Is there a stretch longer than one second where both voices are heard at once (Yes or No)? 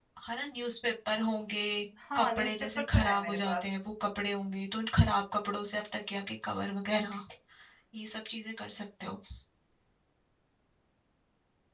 Yes